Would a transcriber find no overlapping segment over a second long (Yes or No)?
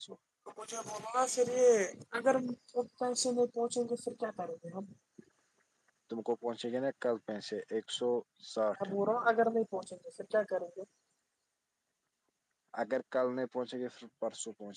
Yes